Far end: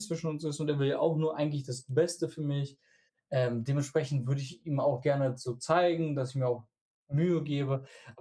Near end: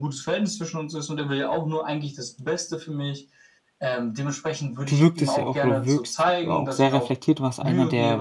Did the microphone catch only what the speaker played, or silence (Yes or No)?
No